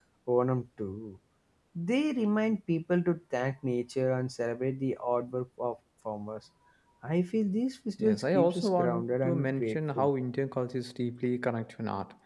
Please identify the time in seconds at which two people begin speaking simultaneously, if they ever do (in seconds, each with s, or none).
8.0 s